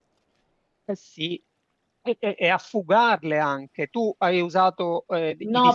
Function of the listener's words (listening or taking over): taking over